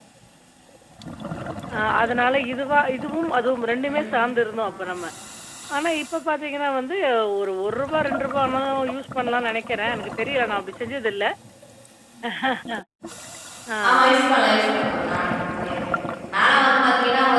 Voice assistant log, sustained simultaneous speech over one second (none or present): none